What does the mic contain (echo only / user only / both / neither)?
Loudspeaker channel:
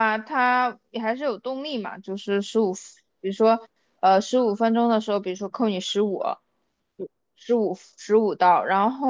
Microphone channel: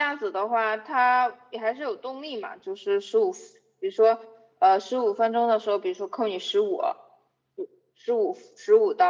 echo only